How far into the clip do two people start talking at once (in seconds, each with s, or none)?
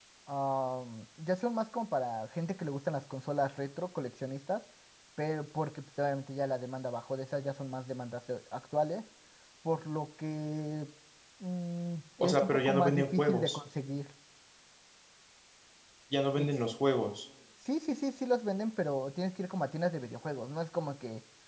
12.2 s